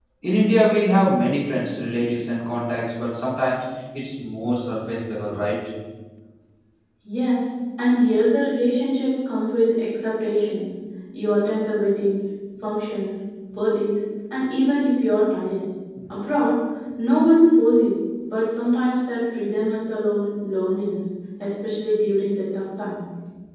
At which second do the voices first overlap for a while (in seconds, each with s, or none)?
none